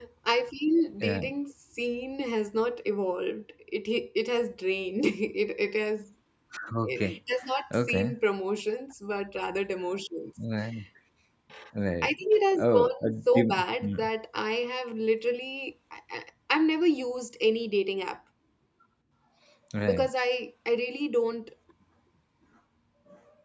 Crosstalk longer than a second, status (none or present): present